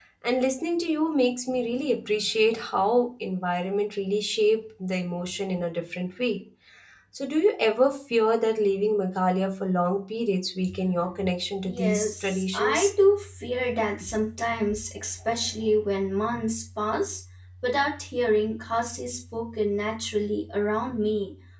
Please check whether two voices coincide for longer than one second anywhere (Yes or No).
Yes